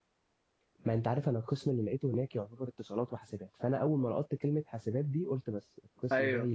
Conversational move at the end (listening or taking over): taking over